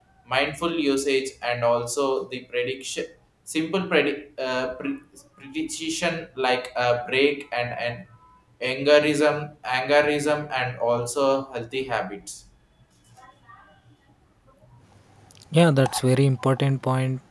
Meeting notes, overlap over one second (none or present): none